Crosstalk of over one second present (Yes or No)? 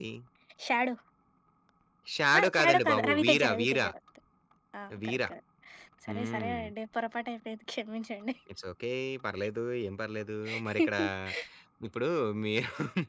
Yes